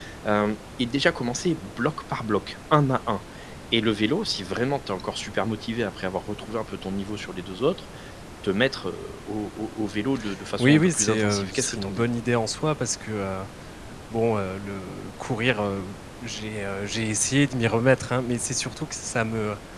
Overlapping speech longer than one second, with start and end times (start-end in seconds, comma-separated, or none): 10.6-12.1